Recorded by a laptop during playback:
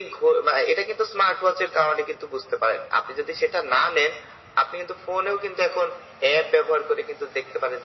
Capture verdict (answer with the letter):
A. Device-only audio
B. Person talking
A